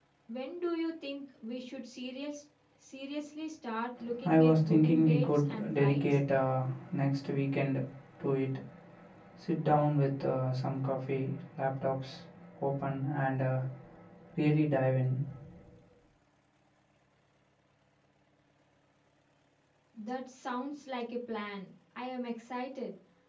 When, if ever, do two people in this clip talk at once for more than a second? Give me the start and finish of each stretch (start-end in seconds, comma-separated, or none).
4.2-6.0